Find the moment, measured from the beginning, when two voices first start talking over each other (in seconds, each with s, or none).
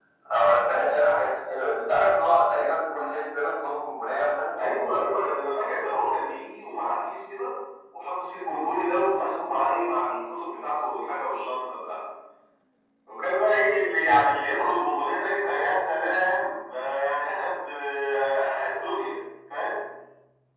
none